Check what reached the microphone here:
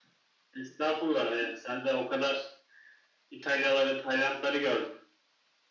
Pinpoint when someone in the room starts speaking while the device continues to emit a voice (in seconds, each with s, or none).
none